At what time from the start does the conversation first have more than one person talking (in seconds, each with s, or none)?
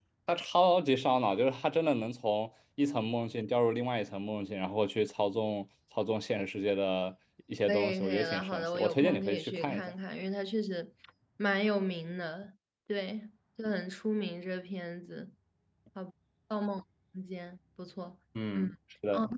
7.7 s